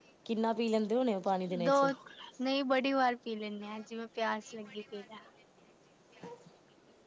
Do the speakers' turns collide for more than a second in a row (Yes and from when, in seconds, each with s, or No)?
No